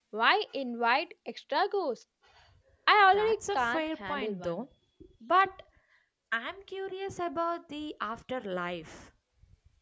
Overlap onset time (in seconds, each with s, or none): 3.1 s